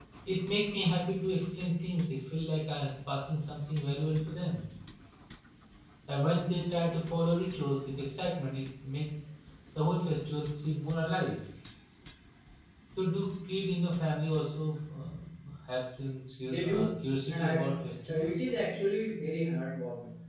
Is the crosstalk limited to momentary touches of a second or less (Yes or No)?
No